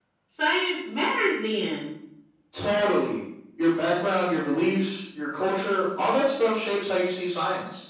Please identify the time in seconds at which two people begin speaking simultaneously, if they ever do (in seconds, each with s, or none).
none